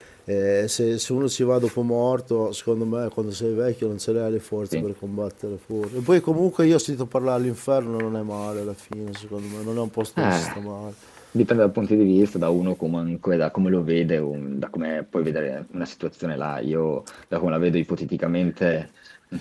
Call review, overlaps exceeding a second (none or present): none